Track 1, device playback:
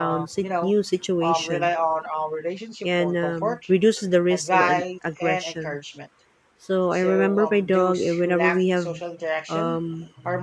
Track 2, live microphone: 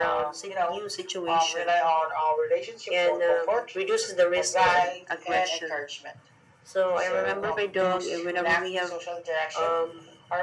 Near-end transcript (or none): none